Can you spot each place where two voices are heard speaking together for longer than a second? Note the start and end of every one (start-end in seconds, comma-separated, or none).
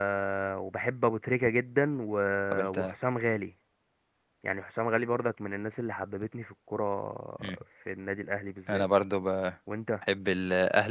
none